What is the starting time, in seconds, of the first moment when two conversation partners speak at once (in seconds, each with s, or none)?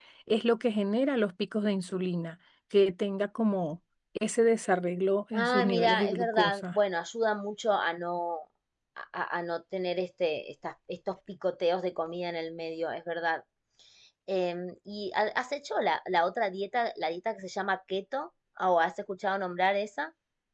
5.3 s